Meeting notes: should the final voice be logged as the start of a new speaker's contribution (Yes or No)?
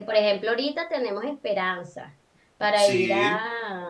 No